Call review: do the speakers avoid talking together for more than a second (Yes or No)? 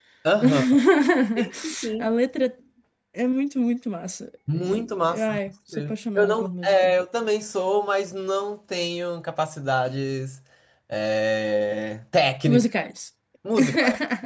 No